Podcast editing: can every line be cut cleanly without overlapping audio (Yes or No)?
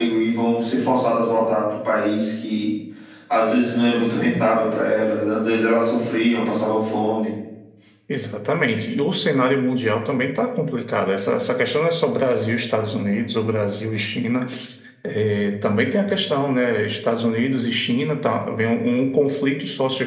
Yes